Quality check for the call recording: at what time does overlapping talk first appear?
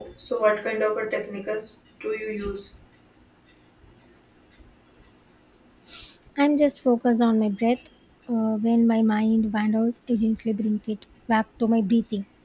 none

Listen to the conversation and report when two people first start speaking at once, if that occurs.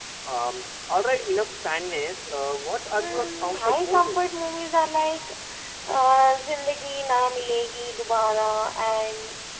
2.9 s

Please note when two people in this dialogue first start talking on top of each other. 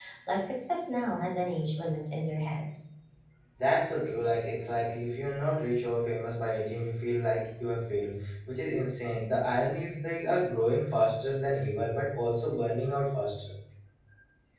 none

